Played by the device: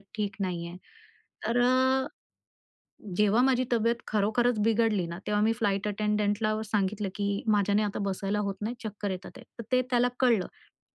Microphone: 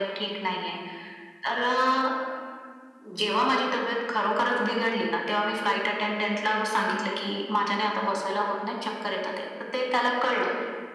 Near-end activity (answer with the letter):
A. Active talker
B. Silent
B